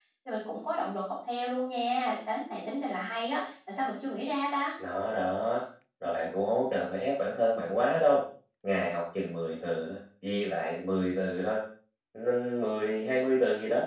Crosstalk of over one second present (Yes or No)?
No